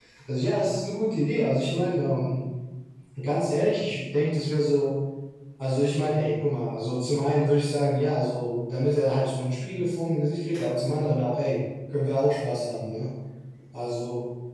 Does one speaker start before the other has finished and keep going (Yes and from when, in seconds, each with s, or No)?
No